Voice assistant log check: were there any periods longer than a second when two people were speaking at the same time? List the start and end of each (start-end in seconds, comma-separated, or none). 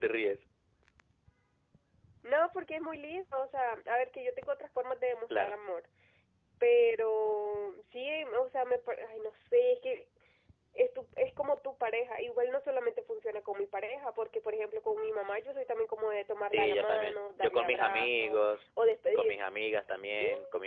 16.5-18.4